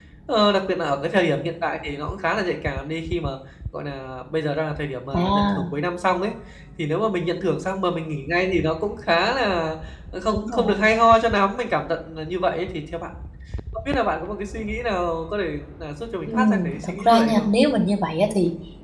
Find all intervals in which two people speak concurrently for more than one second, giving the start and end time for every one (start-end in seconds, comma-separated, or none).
16.3-17.5